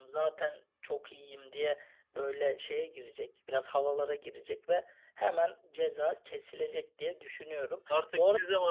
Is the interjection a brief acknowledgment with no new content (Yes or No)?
No